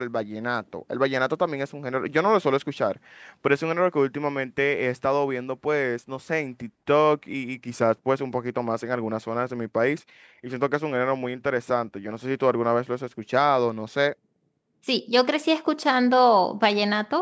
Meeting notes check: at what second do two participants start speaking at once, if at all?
none

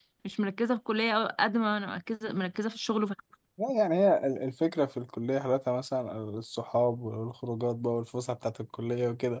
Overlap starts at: none

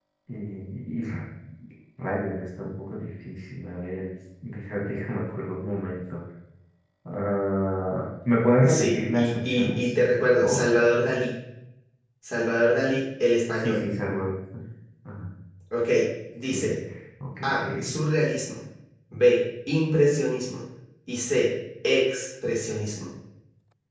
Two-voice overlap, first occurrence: 8.6 s

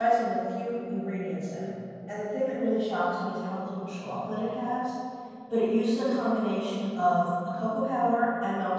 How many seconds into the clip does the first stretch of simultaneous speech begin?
none

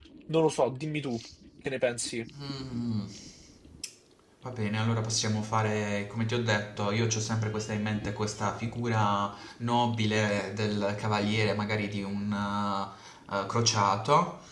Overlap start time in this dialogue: none

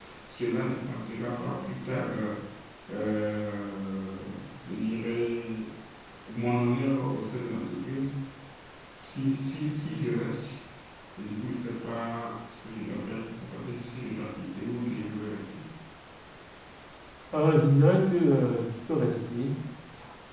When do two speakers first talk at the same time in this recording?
none

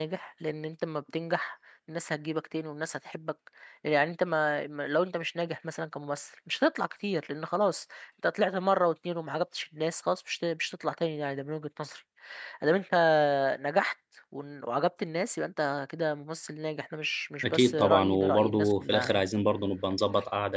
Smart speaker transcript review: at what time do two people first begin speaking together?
17.4 s

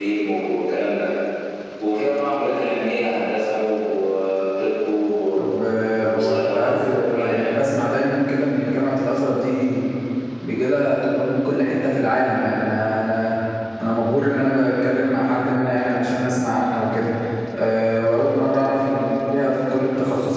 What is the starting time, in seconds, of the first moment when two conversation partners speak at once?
6.0 s

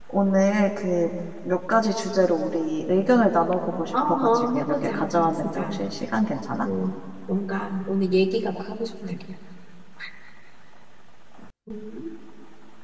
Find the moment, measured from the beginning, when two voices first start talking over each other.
3.9 s

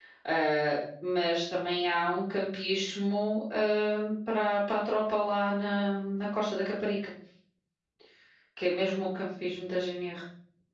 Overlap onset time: none

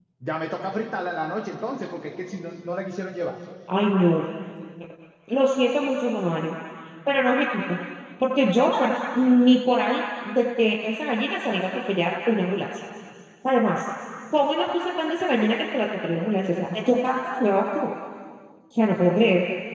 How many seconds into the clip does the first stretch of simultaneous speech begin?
none

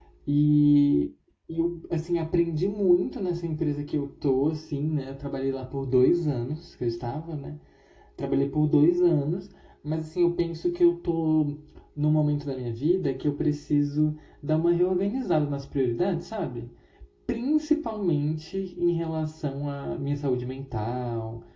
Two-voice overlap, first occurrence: none

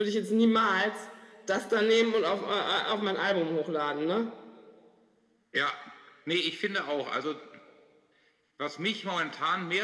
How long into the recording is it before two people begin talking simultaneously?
none

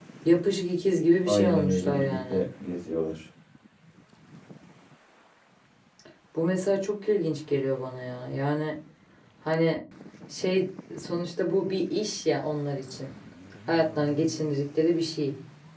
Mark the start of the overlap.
1.3 s

